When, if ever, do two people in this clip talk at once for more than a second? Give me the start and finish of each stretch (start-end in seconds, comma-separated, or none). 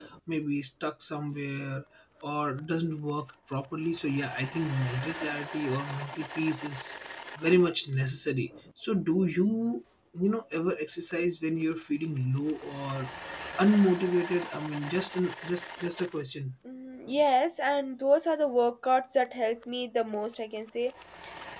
none